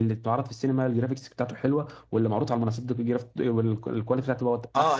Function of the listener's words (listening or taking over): taking over